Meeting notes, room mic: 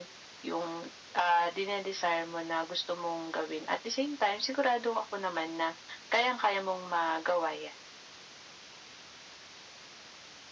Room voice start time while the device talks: none

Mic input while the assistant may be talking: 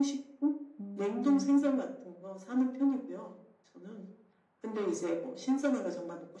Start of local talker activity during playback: 0.8 s

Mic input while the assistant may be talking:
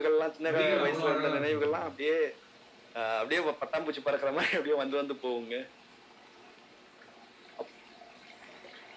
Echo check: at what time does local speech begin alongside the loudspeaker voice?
0.5 s

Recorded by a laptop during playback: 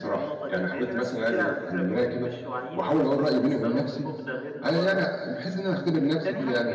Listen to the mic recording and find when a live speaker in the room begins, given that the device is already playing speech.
none

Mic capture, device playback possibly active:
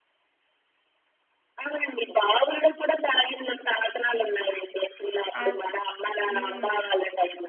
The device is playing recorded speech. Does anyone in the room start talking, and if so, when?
5.4 s

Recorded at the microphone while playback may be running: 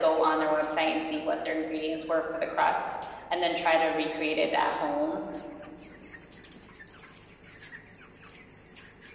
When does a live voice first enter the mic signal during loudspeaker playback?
none

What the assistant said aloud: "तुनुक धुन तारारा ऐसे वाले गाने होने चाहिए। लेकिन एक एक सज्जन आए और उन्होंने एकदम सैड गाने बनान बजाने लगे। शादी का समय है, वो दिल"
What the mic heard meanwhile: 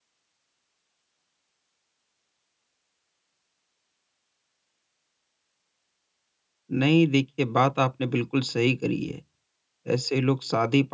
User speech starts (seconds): 6.7 s

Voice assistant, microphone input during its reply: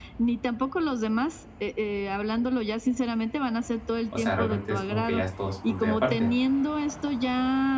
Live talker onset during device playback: 4.1 s

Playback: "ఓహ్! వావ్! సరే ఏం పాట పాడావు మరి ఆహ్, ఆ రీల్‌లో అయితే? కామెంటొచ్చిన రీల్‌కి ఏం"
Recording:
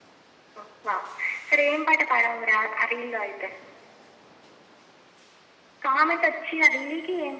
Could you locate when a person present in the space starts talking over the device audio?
none

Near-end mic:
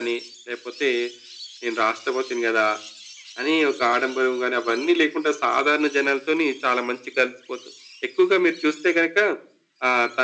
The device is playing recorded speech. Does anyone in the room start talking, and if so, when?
none

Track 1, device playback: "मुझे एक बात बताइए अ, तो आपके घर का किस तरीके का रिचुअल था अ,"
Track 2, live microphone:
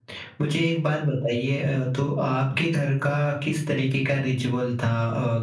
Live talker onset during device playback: none

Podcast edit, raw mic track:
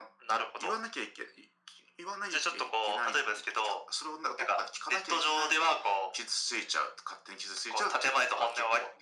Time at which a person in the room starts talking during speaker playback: none

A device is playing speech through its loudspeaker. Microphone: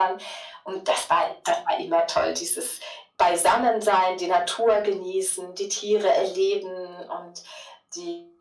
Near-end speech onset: none

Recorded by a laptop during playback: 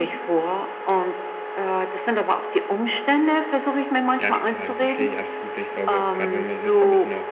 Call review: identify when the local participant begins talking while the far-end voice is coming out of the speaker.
4.2 s

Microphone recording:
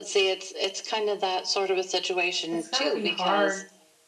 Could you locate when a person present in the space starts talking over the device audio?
2.5 s

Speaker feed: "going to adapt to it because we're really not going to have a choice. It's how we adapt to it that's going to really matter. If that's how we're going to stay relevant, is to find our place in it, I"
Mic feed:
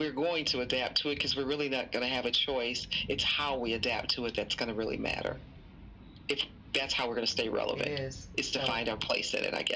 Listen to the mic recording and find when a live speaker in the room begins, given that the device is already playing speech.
7.7 s

